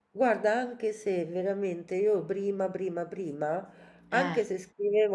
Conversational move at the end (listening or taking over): listening